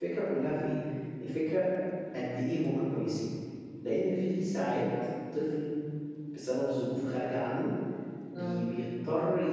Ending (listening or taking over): listening